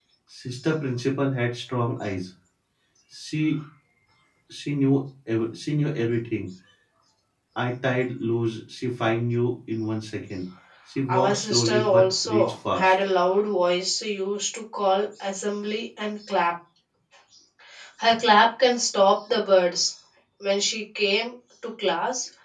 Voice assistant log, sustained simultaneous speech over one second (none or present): present